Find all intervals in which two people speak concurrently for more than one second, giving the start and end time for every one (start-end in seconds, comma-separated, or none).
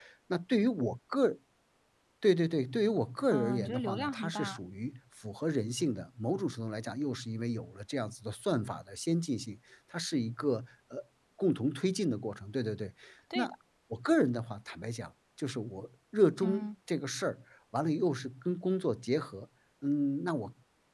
3.3-4.5